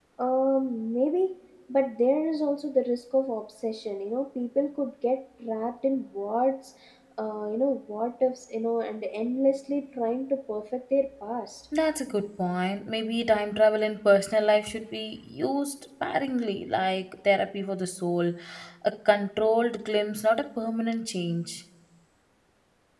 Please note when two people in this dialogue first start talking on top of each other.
none

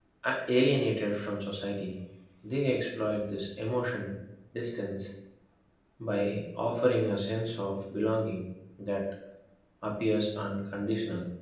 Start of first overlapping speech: none

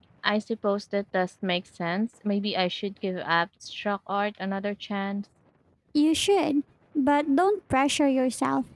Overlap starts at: none

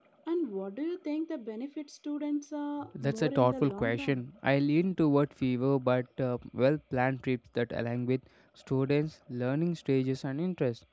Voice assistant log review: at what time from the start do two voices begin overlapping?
2.9 s

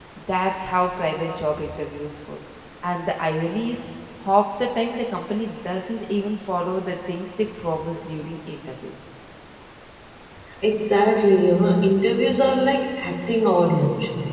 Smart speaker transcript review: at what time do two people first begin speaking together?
none

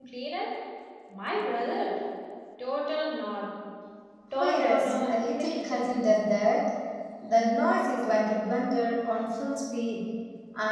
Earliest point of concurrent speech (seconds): 4.4 s

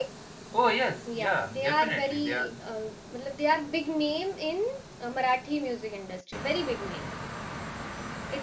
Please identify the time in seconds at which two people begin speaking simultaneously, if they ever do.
1.2 s

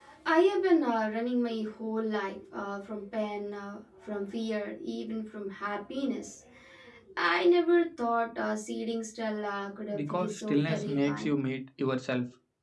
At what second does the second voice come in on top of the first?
9.9 s

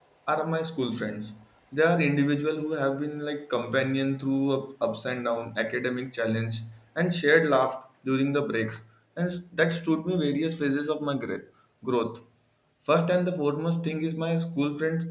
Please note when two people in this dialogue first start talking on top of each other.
none

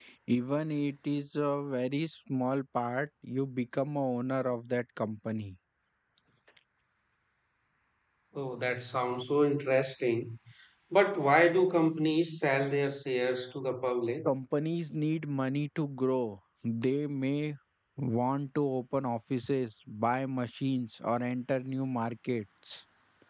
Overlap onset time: none

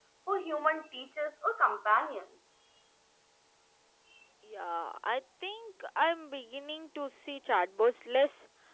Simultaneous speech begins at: none

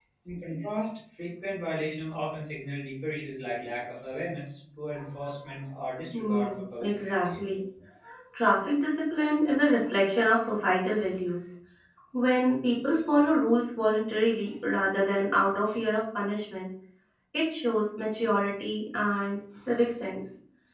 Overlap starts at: 6.1 s

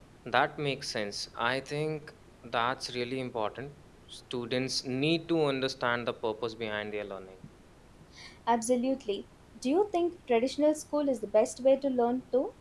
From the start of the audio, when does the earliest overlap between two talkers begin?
none

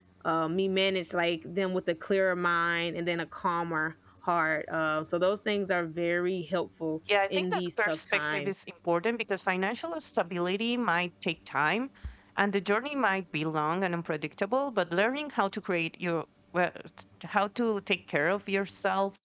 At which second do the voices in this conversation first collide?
7.1 s

